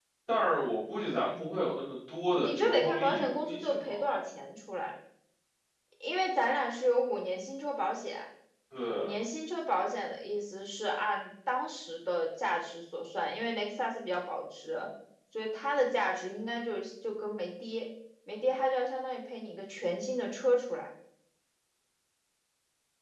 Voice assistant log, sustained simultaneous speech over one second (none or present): present